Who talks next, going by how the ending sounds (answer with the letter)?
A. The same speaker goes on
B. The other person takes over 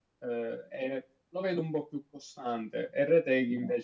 A